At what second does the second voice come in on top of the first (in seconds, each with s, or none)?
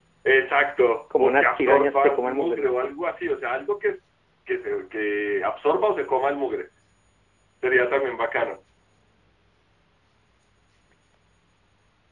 1.2 s